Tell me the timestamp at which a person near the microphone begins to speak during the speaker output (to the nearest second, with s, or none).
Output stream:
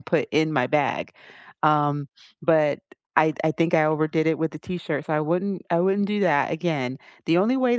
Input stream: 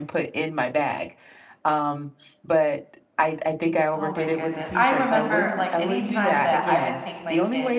4 s